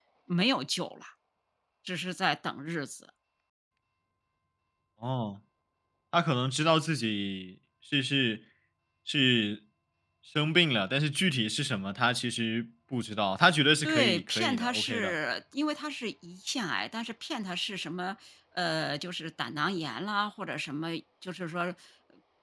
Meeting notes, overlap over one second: present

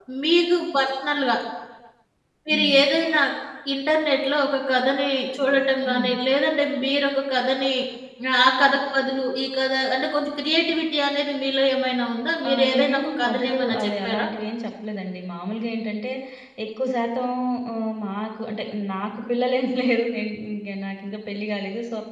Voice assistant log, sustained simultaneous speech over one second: present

